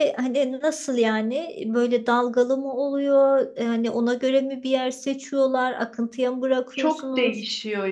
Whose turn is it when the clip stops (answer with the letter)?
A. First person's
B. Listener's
B